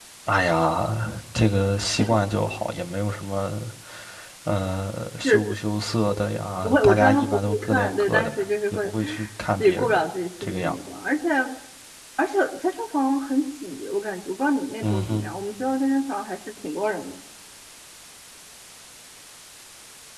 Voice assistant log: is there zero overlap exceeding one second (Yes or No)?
No